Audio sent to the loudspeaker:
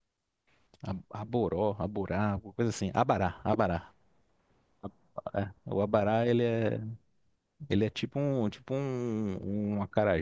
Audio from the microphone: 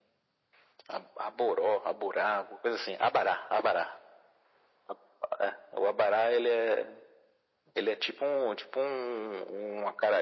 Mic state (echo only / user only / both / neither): echo only